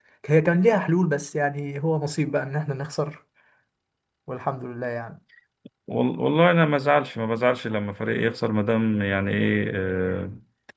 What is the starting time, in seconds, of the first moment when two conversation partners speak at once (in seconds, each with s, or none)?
none